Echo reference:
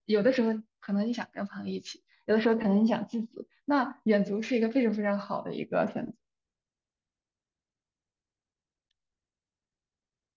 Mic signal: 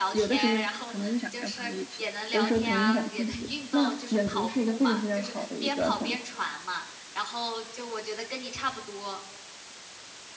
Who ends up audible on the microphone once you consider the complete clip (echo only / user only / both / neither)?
both